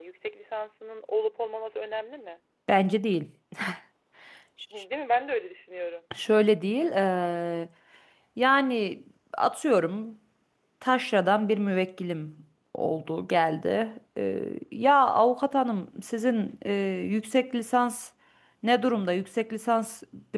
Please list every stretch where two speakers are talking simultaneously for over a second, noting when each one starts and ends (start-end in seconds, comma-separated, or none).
none